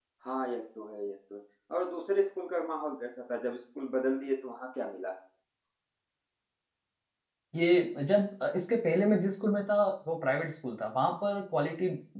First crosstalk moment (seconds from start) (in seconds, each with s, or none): none